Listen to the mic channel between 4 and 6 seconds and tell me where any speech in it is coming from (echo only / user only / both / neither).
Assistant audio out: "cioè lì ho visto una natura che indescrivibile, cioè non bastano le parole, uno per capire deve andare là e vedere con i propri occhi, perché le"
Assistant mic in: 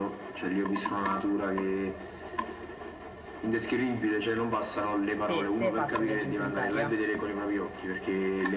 both